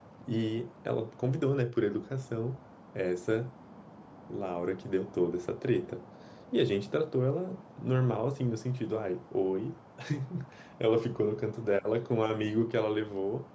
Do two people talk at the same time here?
No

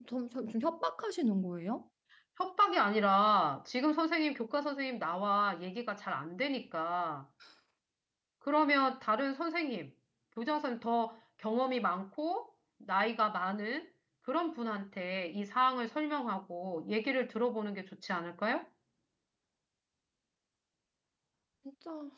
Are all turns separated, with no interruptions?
Yes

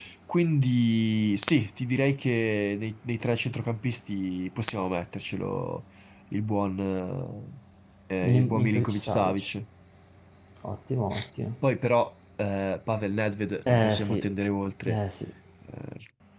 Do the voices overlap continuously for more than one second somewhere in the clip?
Yes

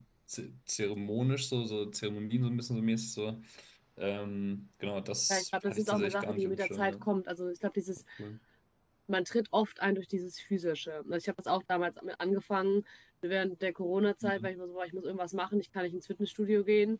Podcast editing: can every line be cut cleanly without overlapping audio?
No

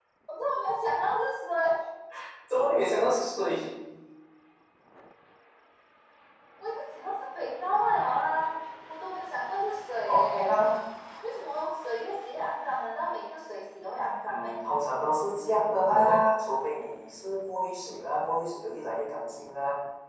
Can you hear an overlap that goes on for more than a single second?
No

